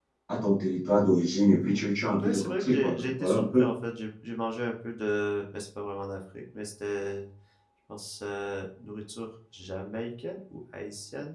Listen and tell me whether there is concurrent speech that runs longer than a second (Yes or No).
Yes